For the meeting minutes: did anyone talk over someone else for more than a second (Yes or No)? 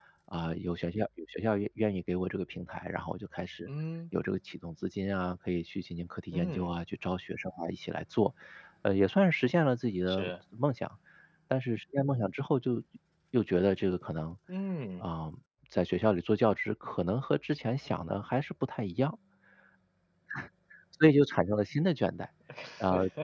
No